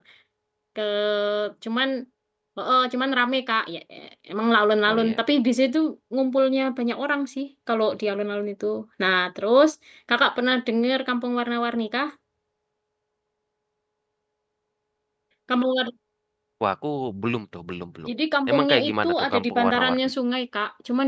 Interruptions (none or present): present